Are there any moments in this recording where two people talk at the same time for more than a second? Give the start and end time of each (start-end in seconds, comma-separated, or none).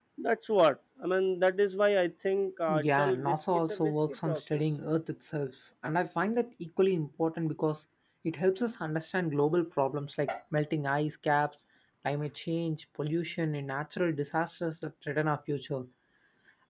2.7-4.7